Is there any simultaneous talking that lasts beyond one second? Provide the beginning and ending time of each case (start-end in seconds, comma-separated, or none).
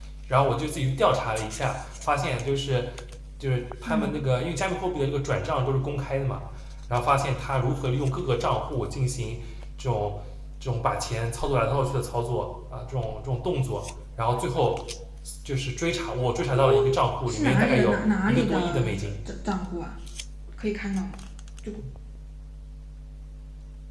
17.3-19.1